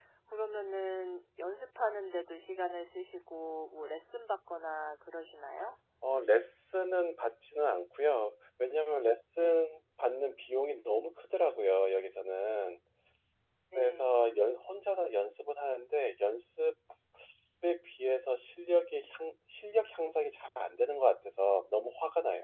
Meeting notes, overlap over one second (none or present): none